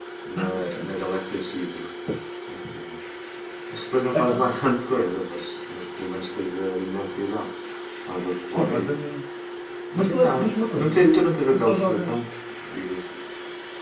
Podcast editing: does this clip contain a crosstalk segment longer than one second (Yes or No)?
Yes